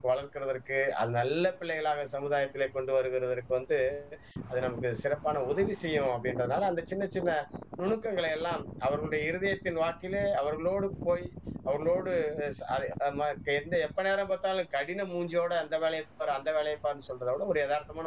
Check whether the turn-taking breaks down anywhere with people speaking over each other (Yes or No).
No